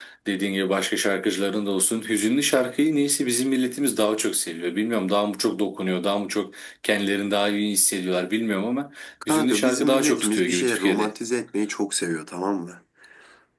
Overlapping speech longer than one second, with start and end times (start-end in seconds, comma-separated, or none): 9.3-11.1